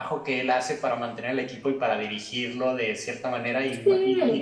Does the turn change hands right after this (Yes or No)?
No